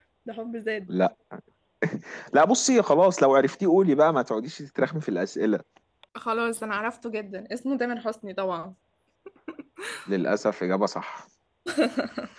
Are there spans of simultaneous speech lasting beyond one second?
No

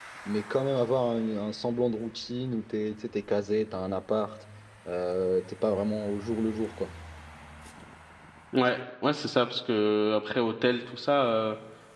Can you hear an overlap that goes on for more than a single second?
No

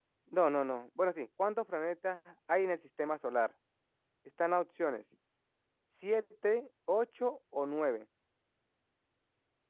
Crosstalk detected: No

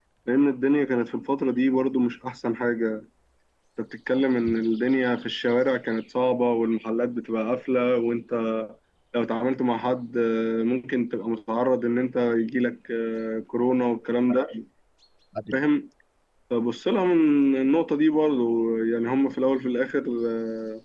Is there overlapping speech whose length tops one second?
No

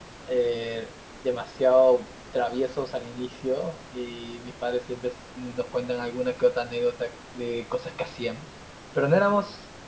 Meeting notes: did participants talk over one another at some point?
No

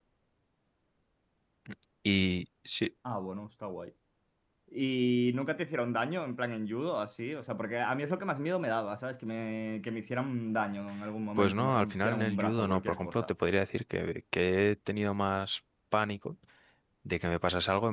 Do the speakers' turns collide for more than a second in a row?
Yes, from 11.4 s

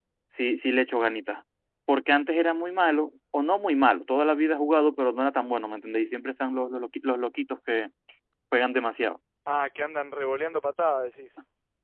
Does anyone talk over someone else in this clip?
No

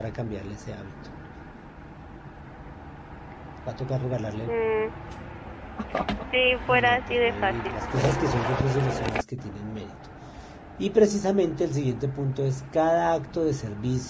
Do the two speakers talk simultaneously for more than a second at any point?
Yes, from 6.7 s

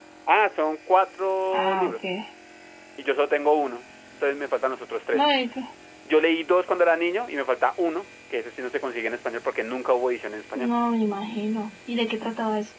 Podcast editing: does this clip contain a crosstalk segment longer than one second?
No

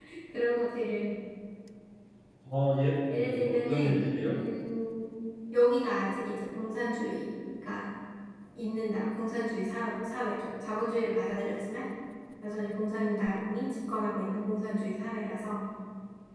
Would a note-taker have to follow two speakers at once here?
Yes, from 3.1 s

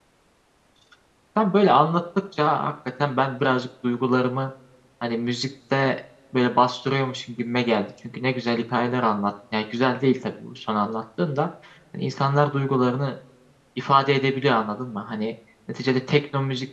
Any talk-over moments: No

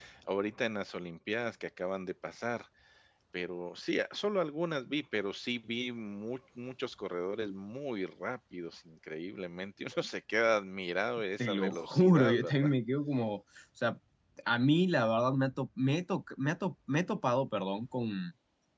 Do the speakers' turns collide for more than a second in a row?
Yes, from 11.4 s

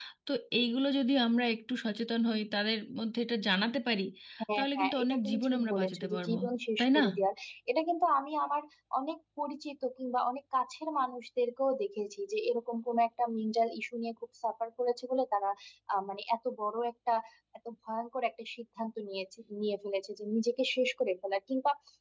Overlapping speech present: Yes, from 4.6 s

